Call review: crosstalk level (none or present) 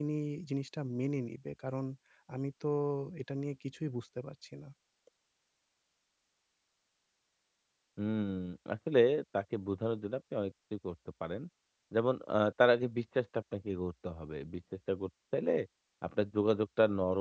none